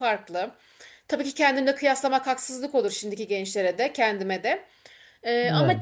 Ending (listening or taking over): listening